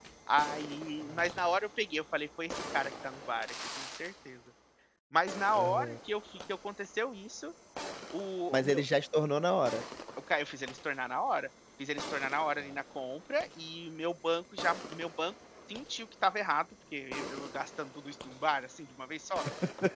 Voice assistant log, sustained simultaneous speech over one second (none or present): none